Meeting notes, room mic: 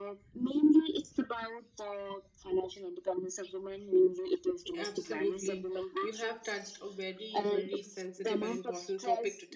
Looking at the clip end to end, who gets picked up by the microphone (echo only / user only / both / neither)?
both